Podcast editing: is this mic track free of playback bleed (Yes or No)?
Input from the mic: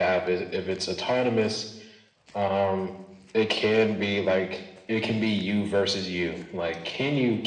No